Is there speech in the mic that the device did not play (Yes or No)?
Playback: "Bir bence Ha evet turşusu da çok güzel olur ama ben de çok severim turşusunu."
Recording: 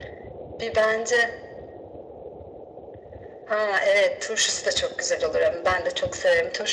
No